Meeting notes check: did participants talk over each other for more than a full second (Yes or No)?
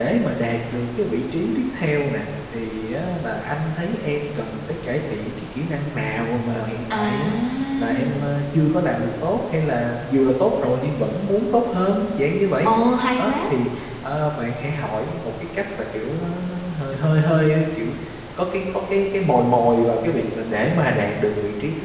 No